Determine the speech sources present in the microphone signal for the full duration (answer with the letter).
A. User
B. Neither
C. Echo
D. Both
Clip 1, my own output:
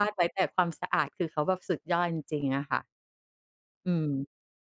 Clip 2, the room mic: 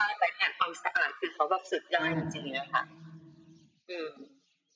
D